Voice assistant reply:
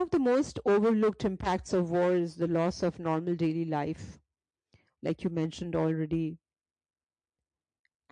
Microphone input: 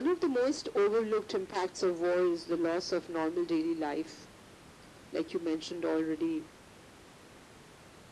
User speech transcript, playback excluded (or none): none